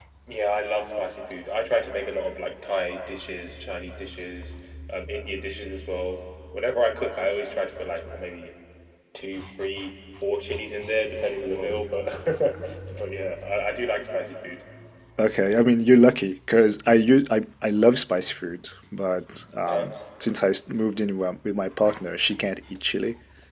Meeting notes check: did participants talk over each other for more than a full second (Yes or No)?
No